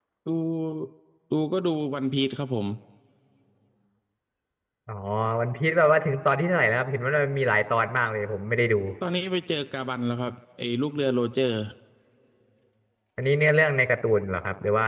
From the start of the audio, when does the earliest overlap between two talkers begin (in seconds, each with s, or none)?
none